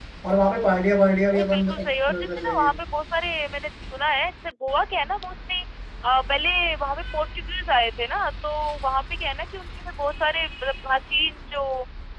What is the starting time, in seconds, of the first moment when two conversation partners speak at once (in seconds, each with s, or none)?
1.3 s